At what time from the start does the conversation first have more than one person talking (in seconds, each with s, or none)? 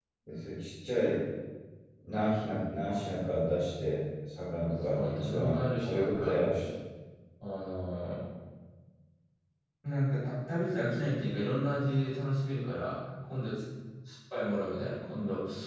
4.9 s